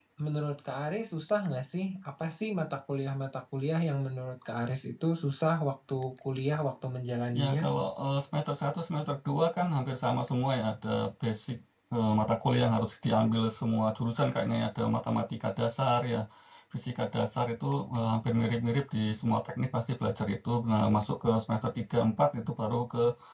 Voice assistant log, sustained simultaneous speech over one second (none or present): none